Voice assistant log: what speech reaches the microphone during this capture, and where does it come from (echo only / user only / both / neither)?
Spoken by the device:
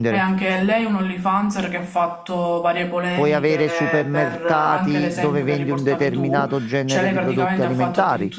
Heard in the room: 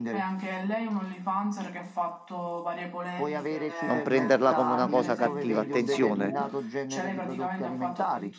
both